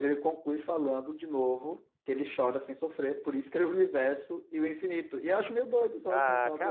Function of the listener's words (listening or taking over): taking over